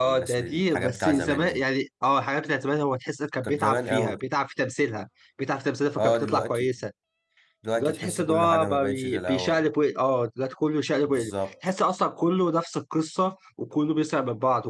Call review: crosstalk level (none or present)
present